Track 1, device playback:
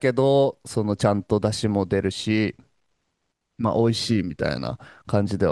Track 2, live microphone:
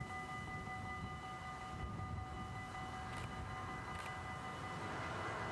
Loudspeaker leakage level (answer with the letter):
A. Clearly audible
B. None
B